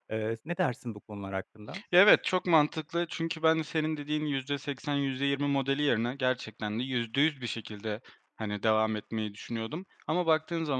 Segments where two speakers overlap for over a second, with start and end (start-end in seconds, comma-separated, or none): none